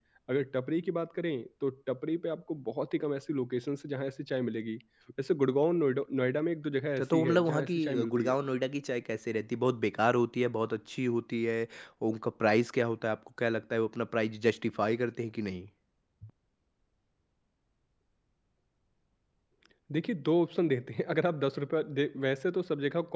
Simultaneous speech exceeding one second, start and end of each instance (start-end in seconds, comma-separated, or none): 7.0-8.3